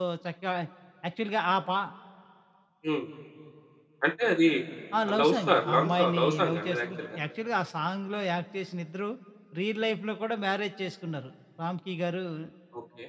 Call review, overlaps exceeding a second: present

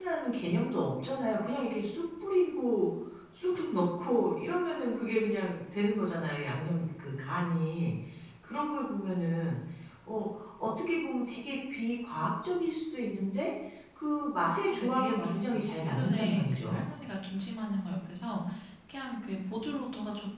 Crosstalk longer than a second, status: present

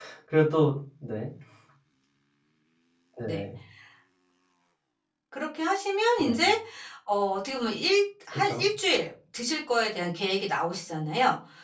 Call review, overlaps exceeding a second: none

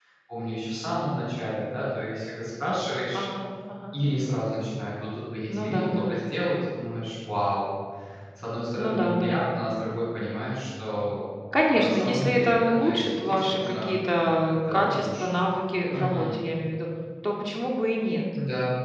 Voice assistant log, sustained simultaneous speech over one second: present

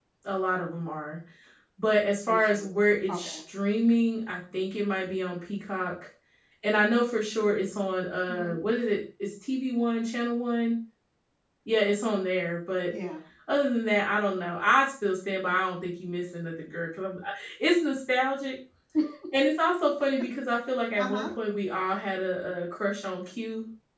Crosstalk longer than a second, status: none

